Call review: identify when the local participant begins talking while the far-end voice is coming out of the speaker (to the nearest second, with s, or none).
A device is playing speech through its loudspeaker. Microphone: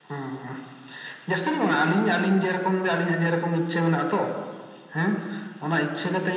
none